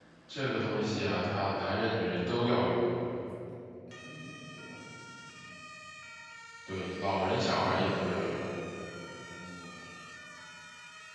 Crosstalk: none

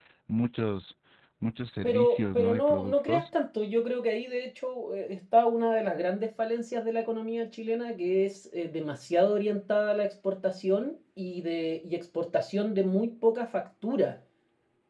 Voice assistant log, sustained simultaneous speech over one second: present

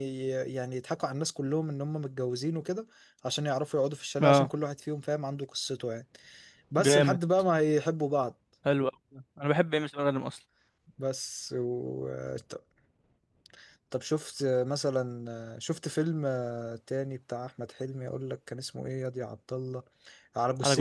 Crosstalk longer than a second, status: none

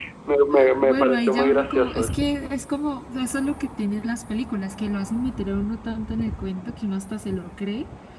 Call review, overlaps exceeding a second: present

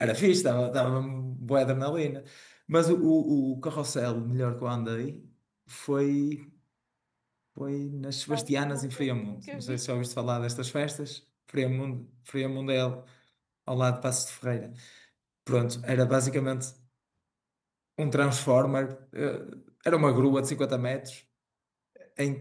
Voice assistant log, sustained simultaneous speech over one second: present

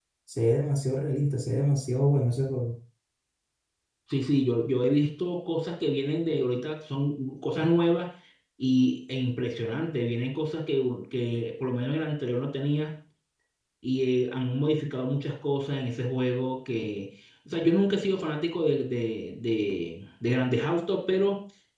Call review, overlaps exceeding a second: none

